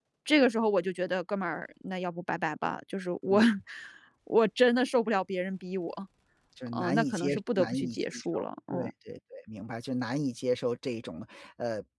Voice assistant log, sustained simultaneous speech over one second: present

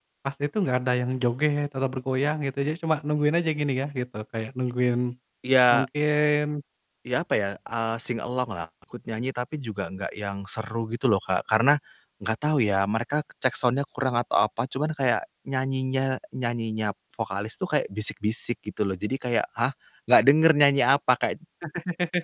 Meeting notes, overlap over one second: none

